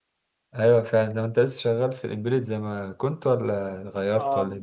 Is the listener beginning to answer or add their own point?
Yes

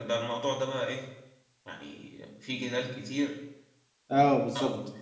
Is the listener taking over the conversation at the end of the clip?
No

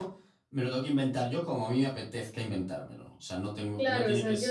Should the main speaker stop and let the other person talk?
Yes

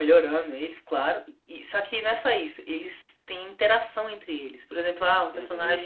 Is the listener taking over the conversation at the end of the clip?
No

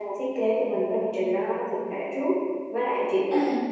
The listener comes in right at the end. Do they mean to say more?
No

